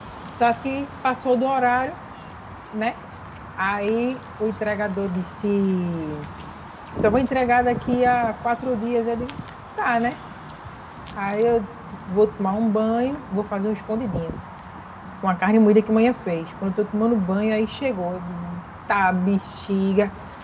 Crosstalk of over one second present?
No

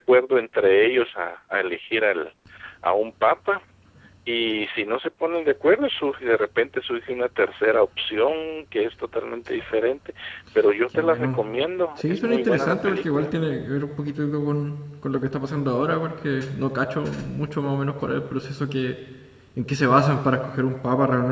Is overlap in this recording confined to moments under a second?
No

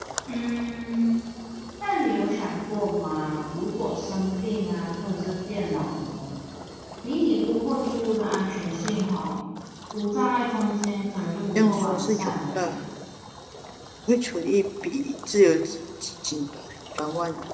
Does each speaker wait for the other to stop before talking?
No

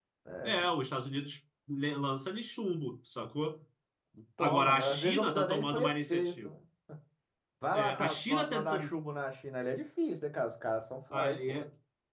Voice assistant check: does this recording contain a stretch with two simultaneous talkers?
Yes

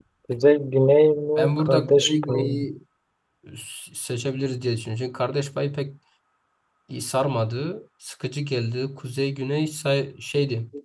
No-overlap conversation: No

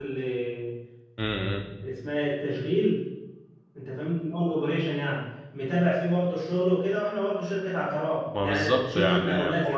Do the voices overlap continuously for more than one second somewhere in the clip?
Yes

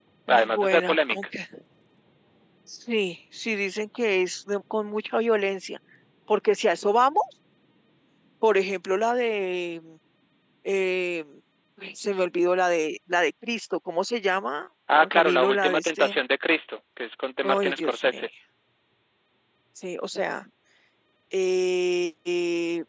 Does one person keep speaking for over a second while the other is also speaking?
Yes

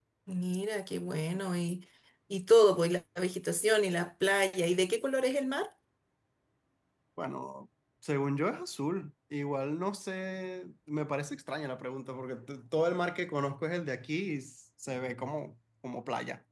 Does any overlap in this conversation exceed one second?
No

